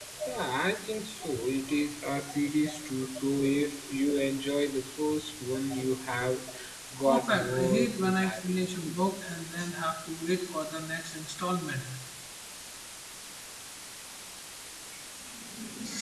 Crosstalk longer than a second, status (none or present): present